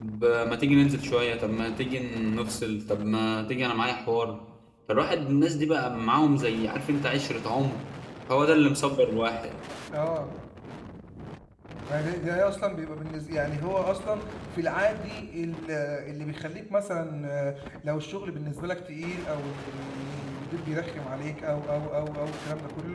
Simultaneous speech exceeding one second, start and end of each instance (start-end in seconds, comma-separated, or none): none